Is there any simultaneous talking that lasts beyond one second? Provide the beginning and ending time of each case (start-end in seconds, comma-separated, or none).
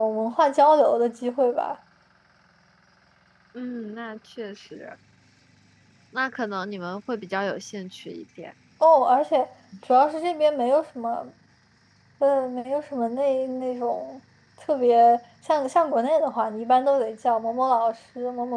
none